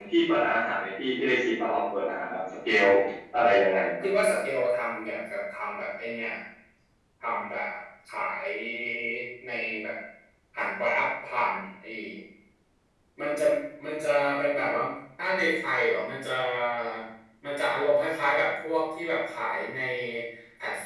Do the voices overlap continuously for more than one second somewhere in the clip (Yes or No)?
No